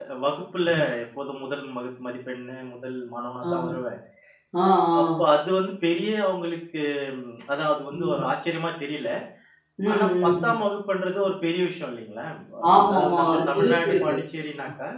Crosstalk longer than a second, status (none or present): present